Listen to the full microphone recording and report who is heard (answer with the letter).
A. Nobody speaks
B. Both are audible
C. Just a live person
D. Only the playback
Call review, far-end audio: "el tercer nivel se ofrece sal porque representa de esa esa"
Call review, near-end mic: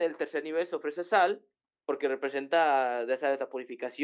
D